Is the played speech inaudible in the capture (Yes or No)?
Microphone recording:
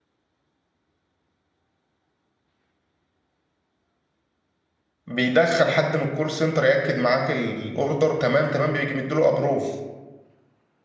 Yes